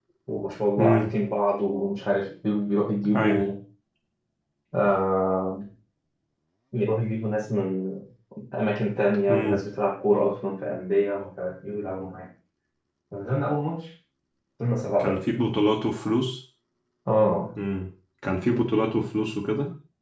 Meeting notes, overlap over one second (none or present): none